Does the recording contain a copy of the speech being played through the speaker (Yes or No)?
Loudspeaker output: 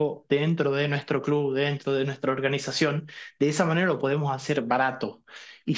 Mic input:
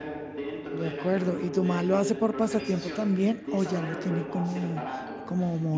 Yes